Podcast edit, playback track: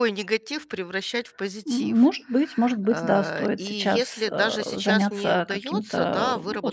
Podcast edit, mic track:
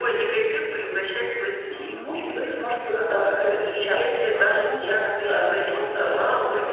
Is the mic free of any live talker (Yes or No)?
No